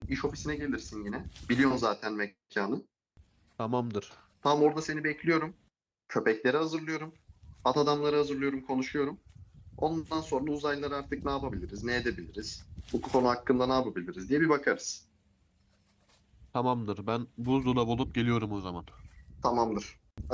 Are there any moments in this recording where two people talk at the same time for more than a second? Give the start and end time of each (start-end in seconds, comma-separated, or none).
none